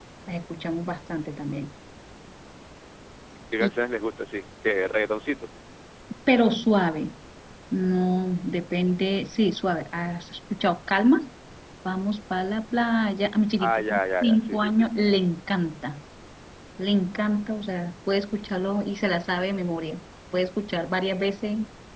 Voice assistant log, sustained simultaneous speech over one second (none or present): present